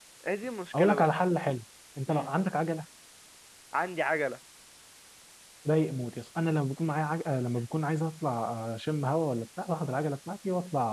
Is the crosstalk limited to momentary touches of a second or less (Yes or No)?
Yes